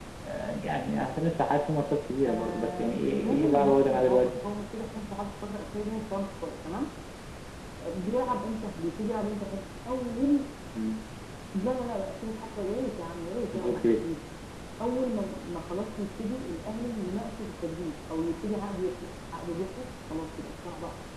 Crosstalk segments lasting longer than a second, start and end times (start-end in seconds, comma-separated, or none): 2.3-4.4